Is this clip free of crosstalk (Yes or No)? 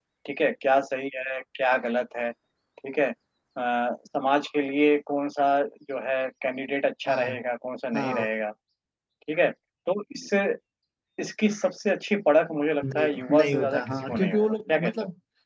No